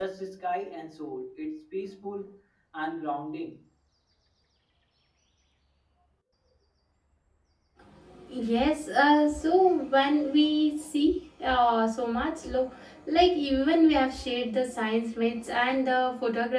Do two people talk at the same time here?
No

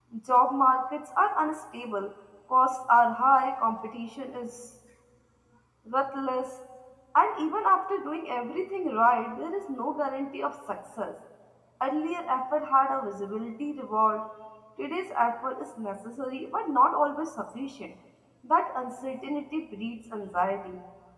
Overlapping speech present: No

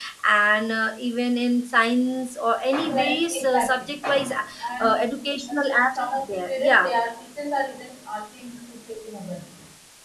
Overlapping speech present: Yes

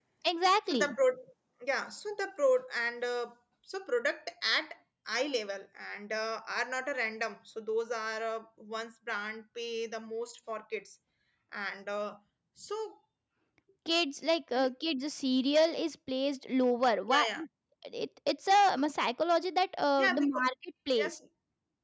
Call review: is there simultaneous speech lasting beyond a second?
No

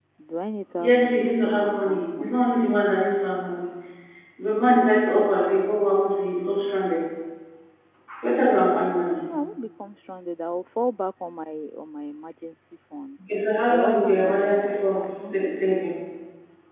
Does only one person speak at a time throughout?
No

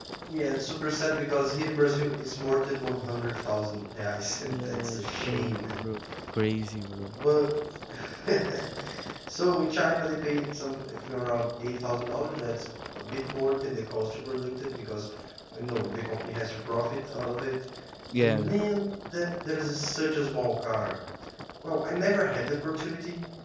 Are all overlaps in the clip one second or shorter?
No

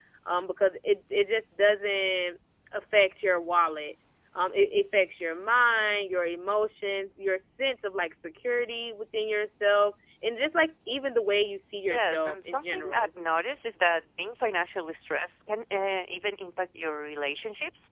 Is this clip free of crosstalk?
No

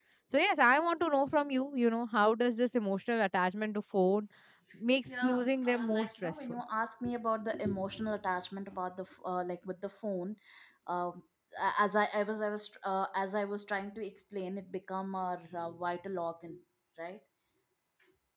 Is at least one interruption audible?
Yes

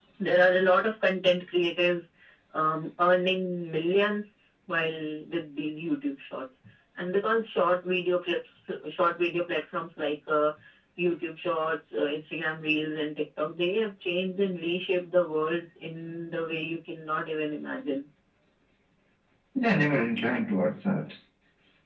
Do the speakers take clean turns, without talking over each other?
Yes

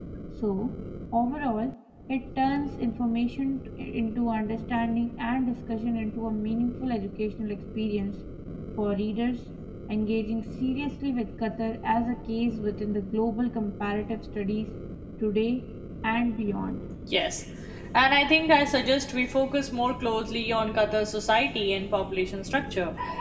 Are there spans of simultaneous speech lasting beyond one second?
No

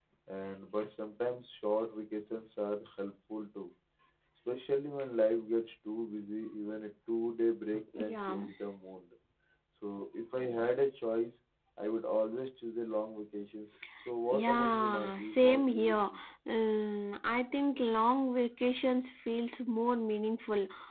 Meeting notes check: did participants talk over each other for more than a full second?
Yes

